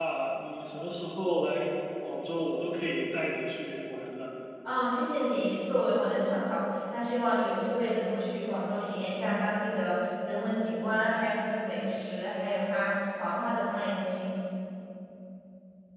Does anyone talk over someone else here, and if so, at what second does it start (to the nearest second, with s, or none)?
none